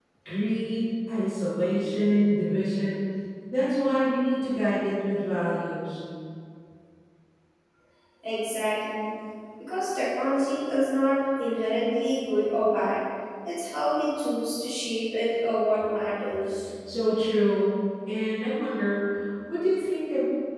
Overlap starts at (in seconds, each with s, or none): none